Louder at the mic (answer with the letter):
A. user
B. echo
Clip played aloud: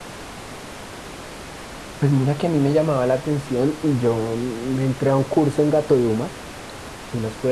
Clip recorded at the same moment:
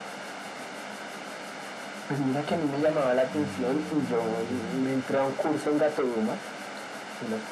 B